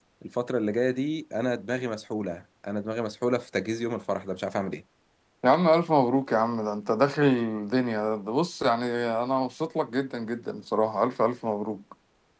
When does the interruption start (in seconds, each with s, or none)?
none